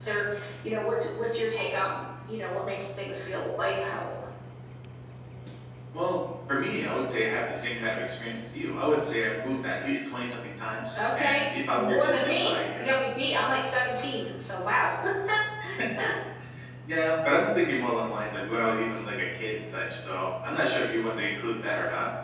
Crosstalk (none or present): present